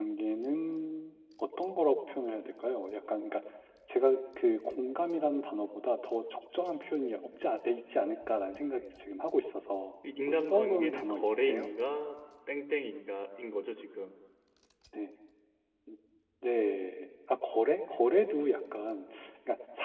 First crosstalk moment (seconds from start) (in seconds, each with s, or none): 10.0 s